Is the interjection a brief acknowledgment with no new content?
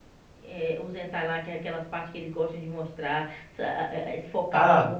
No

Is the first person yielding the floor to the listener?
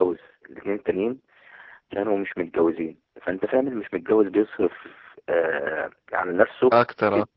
No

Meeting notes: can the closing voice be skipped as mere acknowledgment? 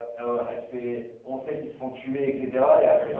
Yes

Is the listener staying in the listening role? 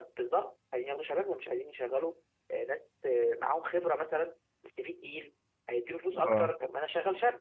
Yes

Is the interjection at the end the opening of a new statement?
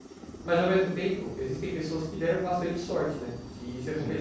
No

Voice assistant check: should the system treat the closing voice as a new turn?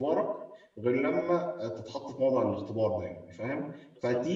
No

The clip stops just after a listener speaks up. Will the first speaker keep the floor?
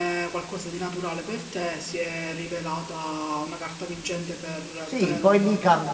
No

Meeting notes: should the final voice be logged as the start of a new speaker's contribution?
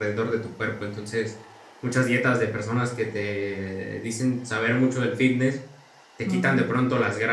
No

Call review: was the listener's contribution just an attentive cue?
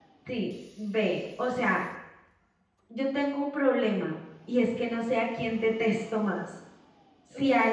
Yes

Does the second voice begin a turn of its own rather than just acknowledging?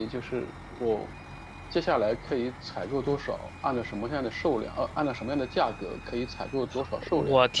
Yes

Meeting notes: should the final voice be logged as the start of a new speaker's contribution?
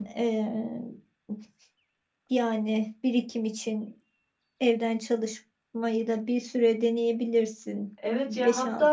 Yes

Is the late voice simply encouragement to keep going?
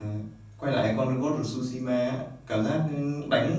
Yes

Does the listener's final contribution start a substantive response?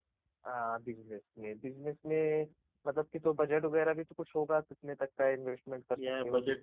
Yes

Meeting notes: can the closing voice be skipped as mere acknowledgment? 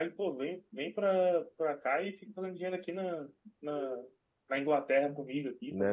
No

